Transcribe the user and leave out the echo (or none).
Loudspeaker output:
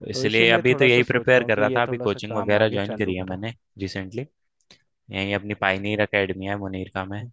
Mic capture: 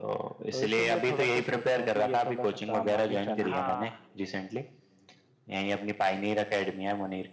हाँ